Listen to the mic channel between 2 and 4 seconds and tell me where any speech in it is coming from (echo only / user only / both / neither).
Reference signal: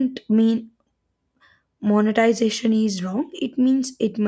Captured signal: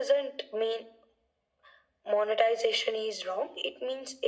echo only